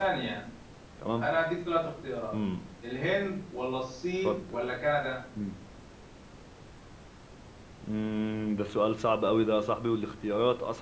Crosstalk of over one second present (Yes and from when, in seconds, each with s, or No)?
No